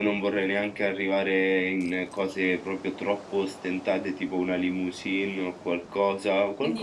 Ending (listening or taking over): taking over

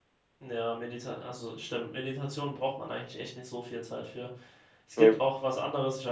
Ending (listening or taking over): listening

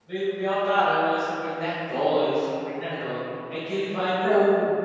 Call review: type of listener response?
listening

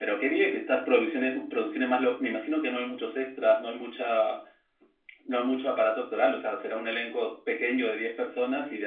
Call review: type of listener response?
taking over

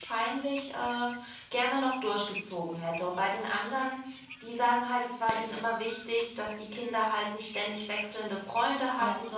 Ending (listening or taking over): listening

